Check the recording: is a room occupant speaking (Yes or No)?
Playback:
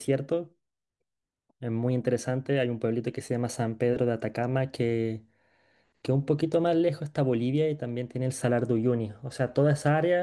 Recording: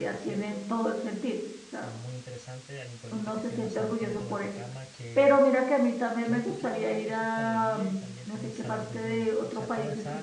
Yes